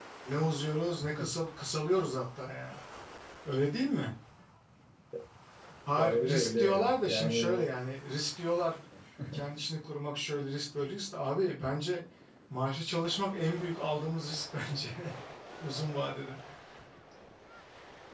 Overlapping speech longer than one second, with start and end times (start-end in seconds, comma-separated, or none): 6.0-7.7